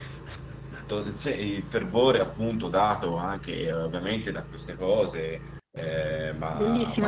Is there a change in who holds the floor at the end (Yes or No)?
Yes